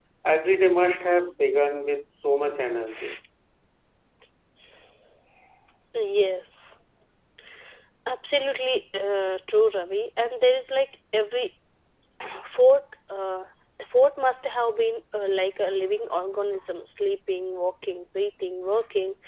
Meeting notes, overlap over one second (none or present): none